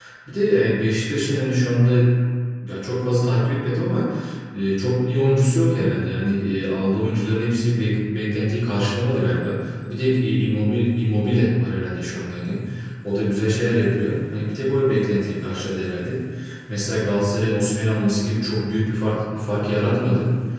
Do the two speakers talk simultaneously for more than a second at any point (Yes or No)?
No